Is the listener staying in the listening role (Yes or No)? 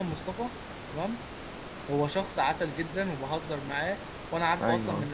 Yes